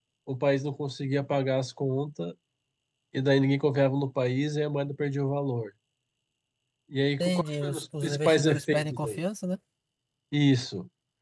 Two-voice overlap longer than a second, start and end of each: 7.2-9.2

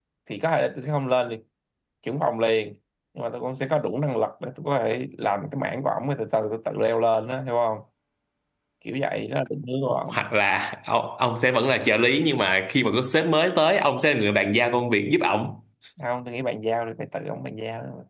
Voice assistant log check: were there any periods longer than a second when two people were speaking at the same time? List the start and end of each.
none

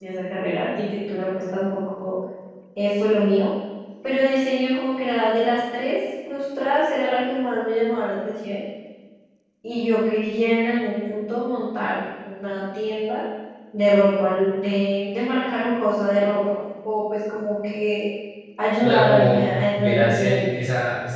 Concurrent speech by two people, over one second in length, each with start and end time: 18.8-20.7

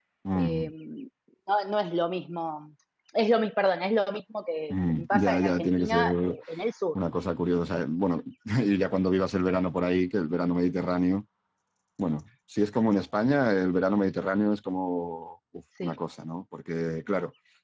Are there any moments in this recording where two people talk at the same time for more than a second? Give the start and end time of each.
4.7-6.1

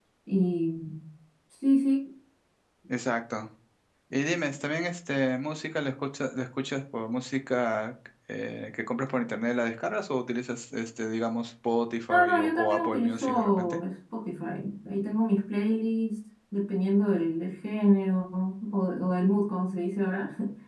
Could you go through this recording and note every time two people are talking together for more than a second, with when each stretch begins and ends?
12.1-13.8

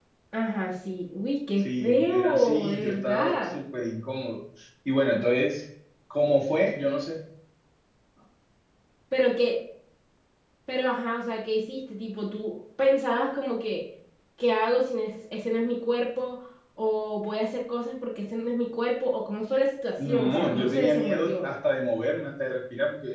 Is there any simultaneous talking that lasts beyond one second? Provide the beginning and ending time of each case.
1.6-3.6, 20.1-21.4

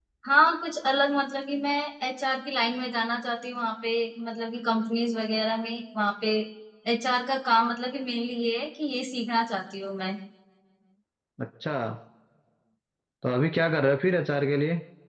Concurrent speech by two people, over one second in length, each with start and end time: none

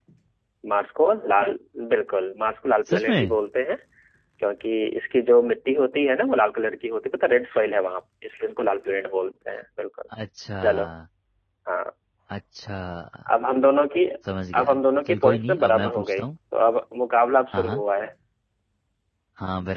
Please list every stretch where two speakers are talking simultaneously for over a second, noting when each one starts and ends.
14.5-16.2

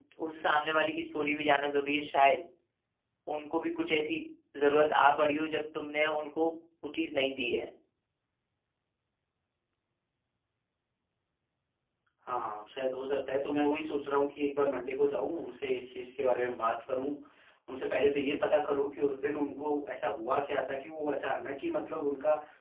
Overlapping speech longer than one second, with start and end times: none

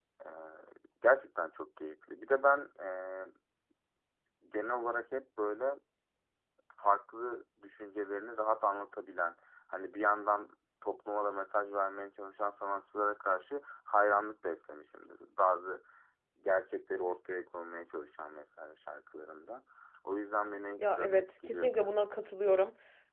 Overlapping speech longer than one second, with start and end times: 20.8-22.0

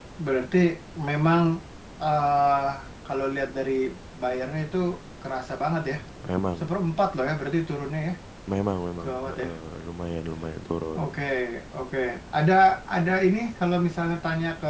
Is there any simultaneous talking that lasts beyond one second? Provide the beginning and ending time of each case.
none

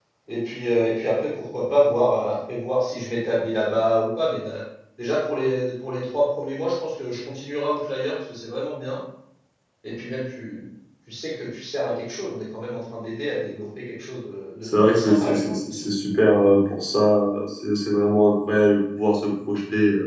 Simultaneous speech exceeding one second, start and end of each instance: 14.6-15.9

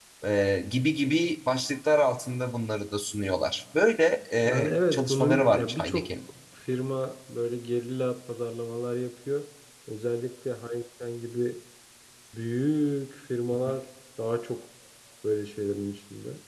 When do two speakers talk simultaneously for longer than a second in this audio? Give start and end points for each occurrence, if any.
4.5-6.1

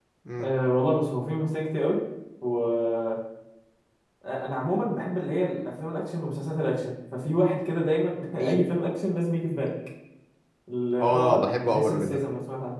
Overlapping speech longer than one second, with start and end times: 11.0-12.2

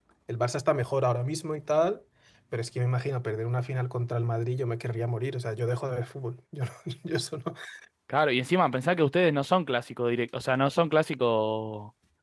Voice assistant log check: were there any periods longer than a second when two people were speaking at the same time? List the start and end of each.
none

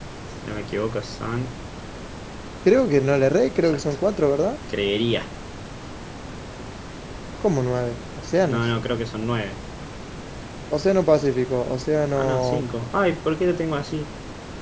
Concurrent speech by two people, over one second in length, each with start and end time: none

